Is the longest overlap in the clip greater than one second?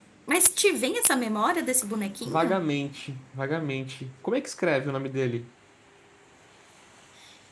No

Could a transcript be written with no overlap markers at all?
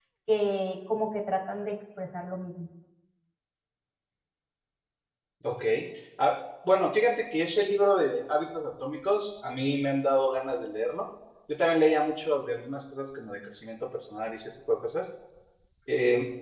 Yes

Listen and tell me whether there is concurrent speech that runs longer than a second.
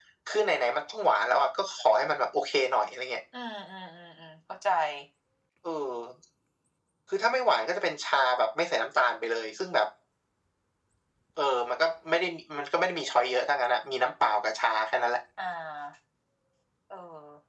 No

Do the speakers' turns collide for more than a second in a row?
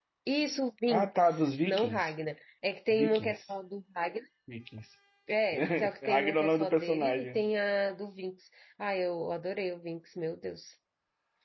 Yes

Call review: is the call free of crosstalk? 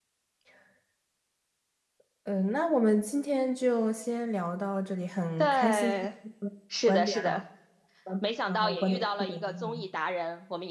No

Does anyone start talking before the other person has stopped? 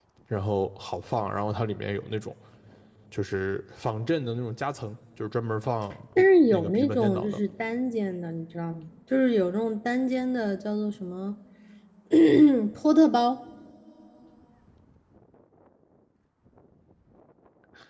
Yes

